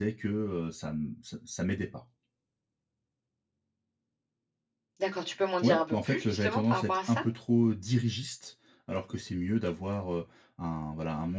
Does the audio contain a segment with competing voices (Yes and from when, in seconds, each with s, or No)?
Yes, from 5.6 s